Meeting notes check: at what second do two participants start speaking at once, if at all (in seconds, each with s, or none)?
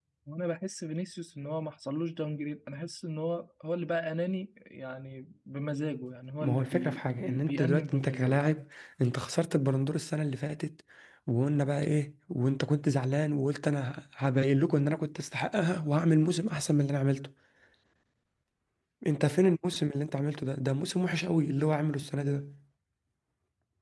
6.4 s